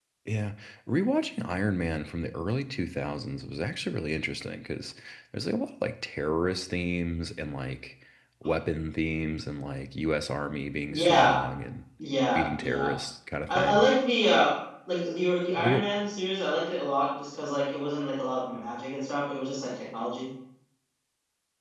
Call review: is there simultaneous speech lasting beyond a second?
No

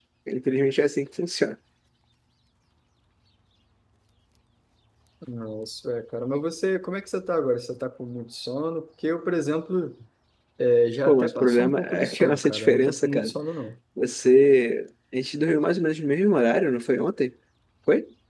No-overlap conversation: No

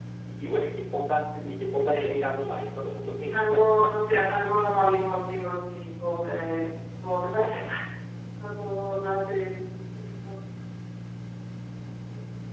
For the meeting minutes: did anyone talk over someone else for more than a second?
No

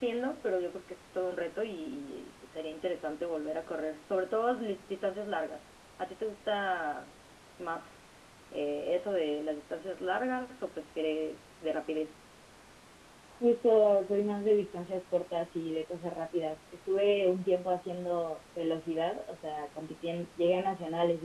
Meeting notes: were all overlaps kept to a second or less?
Yes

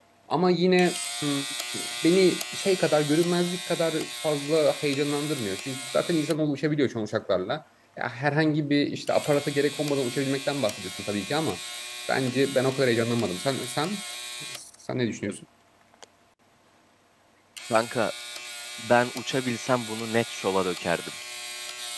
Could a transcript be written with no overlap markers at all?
Yes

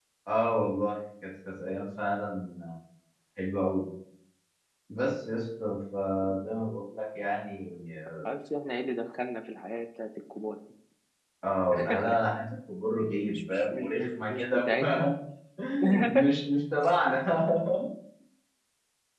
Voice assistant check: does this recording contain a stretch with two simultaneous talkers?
Yes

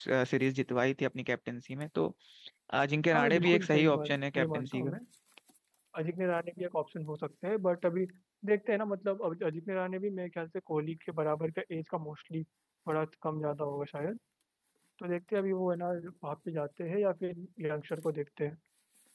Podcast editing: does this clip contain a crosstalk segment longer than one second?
Yes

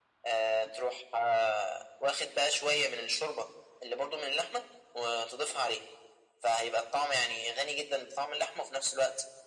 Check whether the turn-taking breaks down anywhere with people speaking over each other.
No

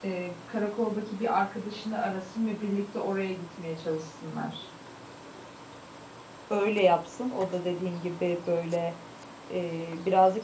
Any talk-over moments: No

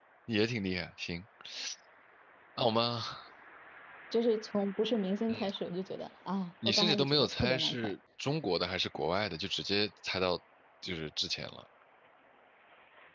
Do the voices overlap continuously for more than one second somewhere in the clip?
Yes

